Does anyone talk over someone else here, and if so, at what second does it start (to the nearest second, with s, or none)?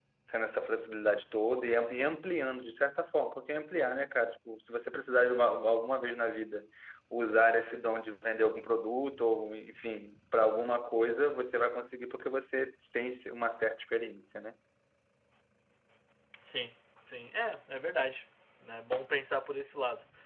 none